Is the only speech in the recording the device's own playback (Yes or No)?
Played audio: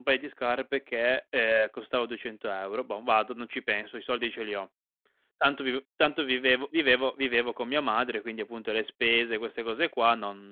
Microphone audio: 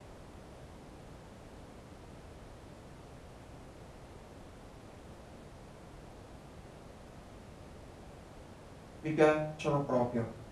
No